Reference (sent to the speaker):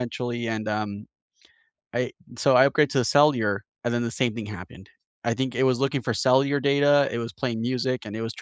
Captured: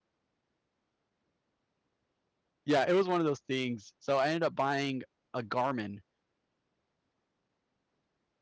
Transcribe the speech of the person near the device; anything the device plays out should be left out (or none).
yeah, it was one of those things. So I ended up buying a Garmin,